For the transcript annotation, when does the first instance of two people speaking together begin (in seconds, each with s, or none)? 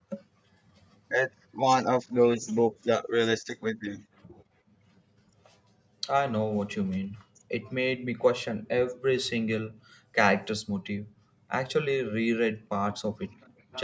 none